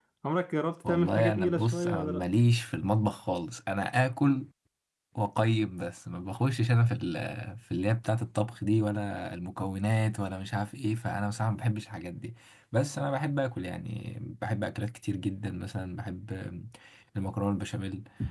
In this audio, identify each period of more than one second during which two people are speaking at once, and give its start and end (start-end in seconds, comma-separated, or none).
0.8-2.3